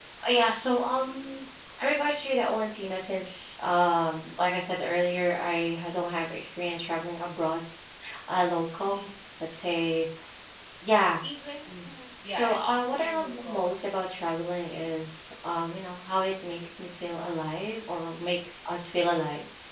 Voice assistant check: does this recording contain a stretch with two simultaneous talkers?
Yes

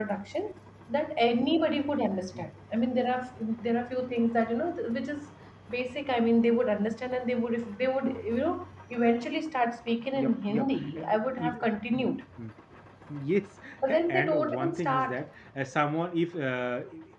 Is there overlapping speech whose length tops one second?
Yes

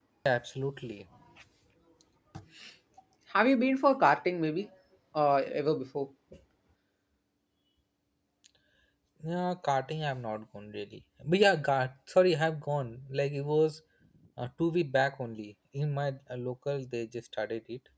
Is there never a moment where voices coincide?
Yes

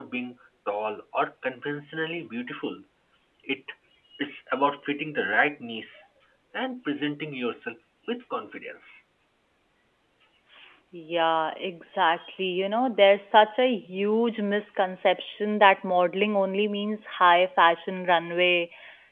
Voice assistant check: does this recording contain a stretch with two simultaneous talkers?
No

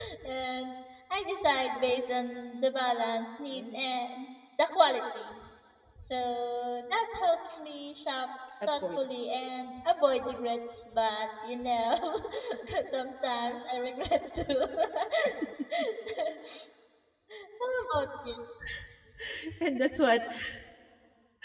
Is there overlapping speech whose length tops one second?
No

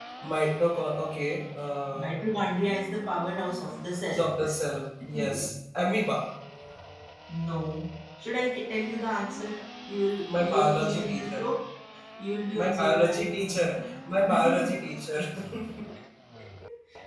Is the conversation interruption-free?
No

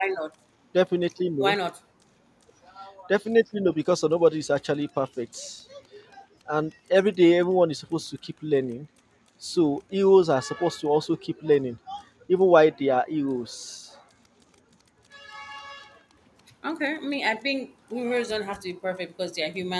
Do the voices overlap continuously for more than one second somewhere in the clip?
No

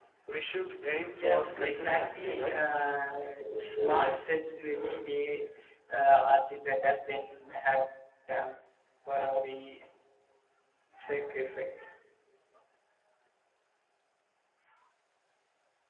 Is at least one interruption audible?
Yes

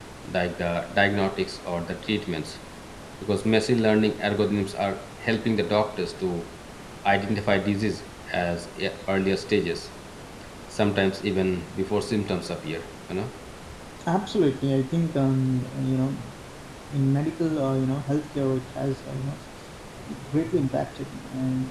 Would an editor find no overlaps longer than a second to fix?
Yes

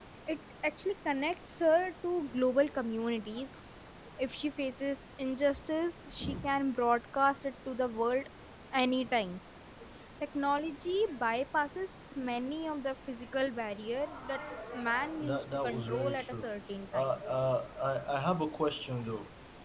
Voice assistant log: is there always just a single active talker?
No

